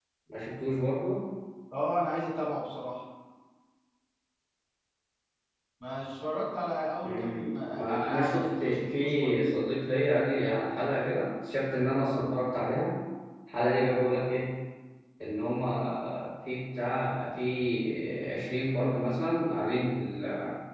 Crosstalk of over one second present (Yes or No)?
Yes